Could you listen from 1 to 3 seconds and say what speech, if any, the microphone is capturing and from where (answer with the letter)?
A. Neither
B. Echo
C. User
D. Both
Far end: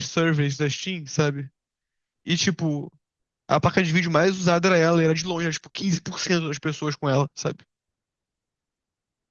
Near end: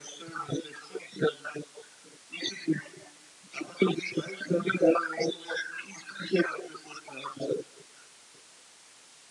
B